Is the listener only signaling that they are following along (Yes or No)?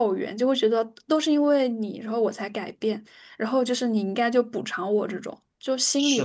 No